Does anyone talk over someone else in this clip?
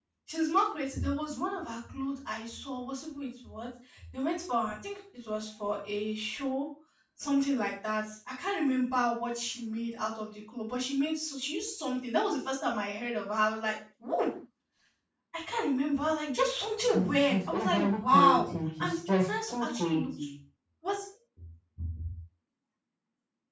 Yes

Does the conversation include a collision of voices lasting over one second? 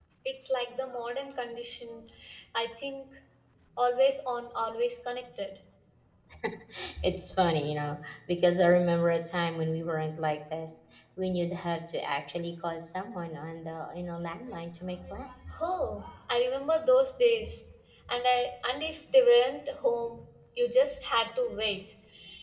No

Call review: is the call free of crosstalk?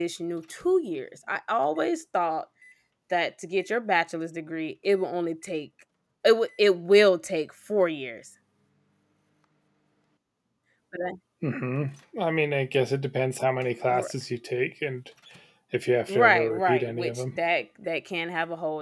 No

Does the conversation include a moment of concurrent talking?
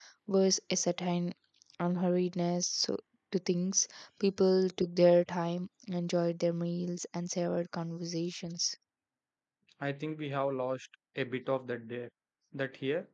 No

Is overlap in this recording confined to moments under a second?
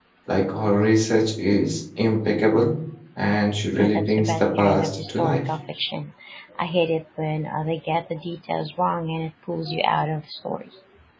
No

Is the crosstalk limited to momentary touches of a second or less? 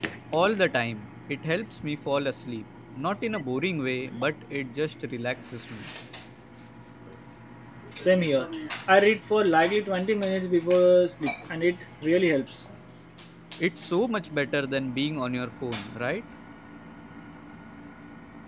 Yes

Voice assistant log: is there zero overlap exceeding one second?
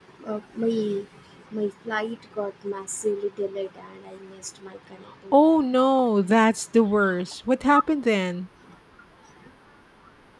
Yes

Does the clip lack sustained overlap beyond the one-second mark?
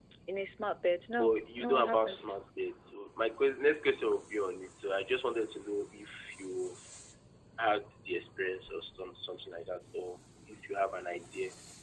No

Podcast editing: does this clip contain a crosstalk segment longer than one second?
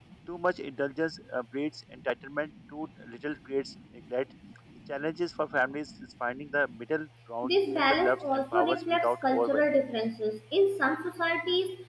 Yes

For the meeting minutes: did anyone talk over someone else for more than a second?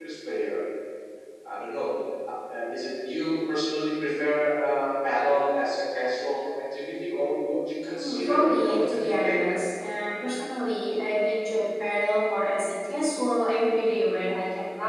Yes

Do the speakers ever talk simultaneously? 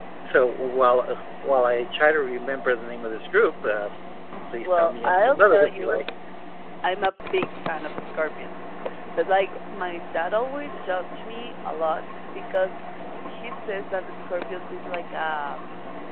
Yes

